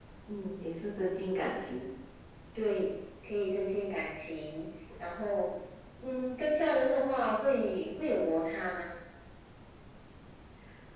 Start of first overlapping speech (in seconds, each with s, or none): none